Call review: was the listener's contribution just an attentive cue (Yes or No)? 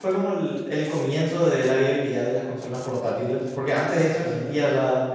Yes